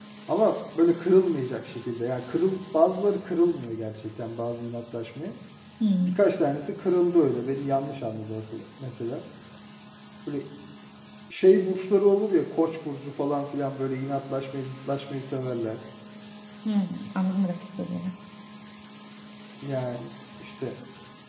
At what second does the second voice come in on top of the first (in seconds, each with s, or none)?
none